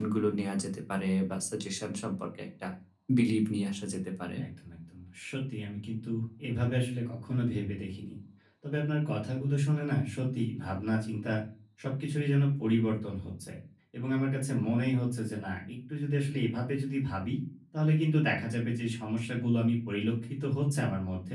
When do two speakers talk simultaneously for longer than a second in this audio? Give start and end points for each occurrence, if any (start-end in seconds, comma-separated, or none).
none